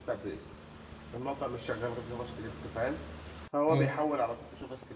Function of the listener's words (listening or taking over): listening